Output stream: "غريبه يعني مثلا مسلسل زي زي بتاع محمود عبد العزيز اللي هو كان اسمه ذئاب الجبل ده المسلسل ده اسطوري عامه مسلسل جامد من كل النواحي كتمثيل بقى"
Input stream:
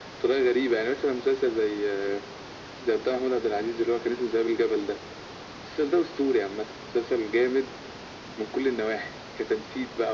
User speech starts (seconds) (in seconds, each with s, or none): none